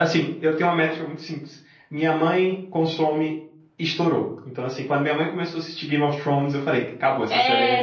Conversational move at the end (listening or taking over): taking over